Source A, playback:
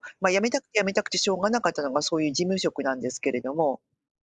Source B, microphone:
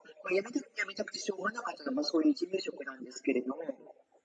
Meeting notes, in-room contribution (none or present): none